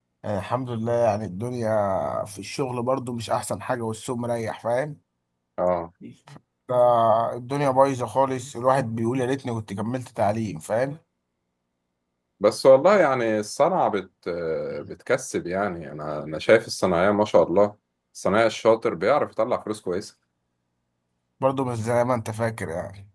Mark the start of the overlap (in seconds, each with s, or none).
none